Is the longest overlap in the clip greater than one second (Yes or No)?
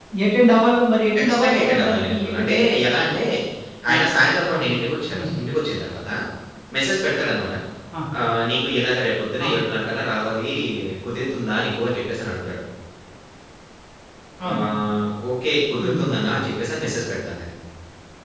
Yes